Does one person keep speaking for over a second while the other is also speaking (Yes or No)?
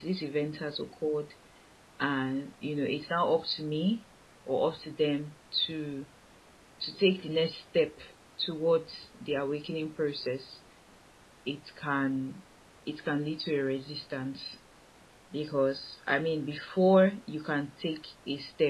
No